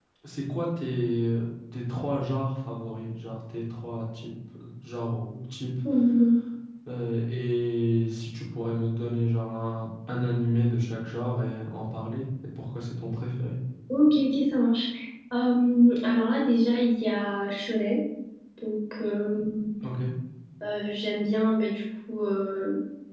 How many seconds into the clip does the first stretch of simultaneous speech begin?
none

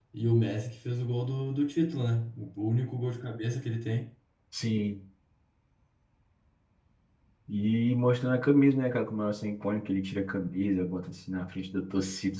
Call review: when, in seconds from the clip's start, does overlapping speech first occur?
none

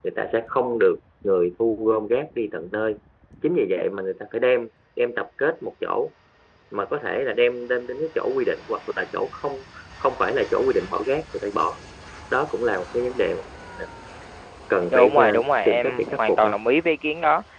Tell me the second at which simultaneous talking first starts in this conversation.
14.9 s

